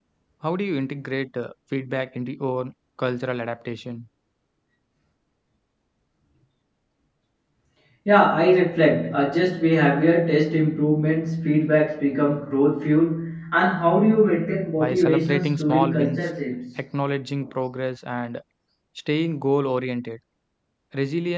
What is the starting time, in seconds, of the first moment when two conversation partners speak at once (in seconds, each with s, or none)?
14.8 s